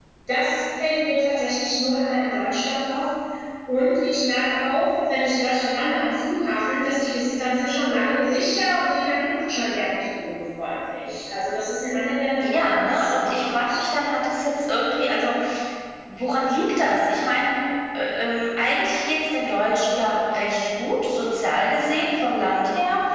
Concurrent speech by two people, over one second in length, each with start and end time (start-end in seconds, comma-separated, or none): 12.4-13.8